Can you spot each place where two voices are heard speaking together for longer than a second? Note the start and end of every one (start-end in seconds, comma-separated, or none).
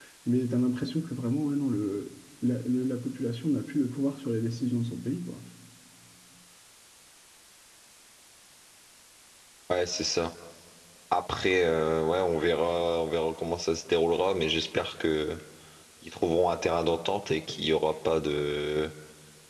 none